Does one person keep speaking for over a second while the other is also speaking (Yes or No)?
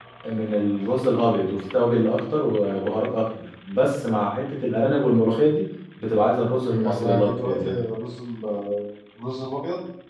Yes